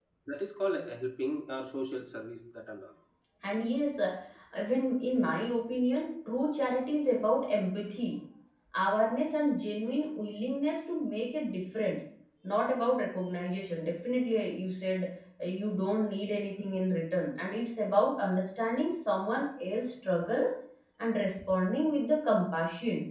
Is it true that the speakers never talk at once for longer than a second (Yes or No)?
Yes